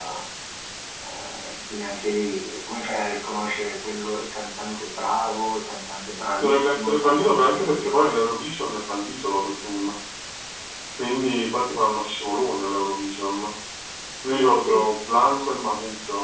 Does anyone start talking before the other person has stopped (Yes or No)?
Yes